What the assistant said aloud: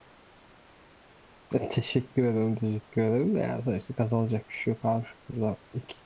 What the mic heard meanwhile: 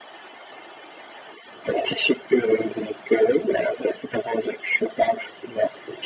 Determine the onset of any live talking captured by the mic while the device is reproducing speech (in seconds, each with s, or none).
none